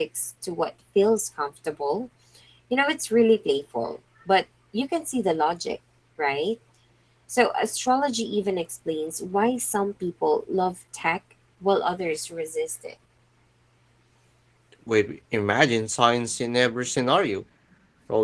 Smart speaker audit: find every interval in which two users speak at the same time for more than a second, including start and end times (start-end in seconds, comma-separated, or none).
none